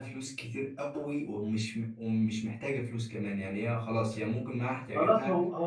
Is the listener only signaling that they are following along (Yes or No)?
No